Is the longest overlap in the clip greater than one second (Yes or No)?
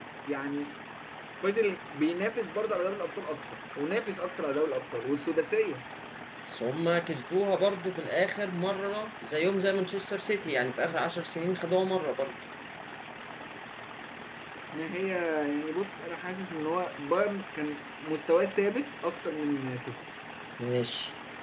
No